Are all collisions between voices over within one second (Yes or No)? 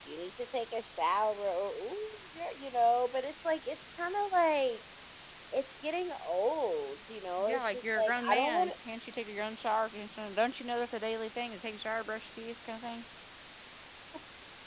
No